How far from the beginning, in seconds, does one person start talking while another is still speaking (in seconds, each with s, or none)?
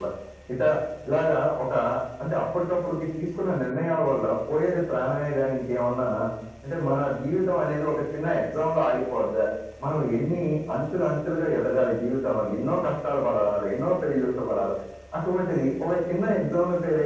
none